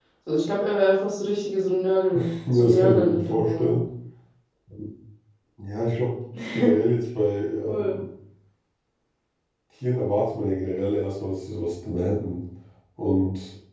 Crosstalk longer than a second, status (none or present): present